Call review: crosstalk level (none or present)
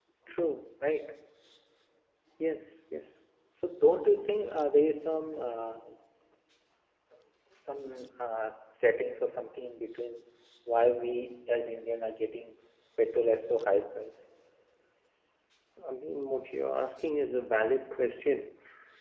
none